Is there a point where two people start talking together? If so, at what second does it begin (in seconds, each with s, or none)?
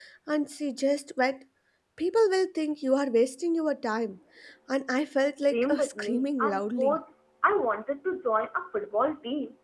5.4 s